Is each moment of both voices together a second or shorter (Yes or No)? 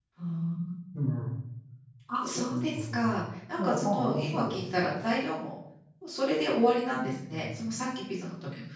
No